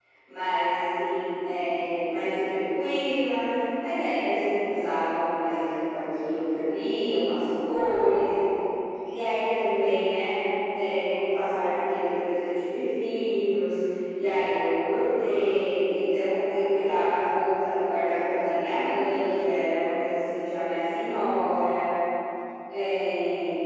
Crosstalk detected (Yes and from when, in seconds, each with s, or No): No